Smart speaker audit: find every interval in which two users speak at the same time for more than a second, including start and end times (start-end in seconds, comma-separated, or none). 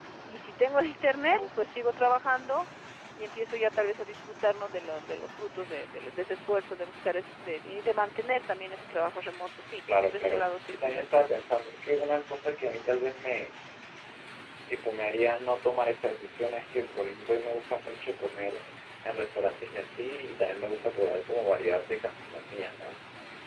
10.0-11.3